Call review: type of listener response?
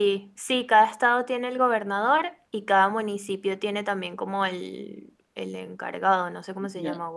taking over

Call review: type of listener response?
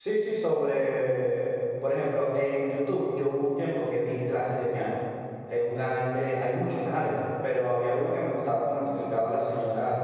listening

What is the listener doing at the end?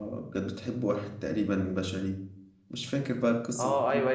taking over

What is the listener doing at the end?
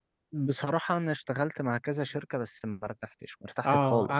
taking over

